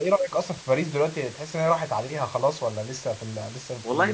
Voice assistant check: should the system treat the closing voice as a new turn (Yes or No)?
Yes